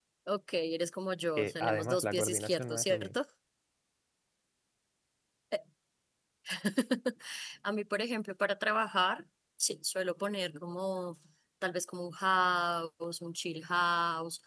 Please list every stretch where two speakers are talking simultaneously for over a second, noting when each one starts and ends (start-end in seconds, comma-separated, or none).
1.4-3.1